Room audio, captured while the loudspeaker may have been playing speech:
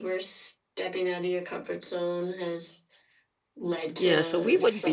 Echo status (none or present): present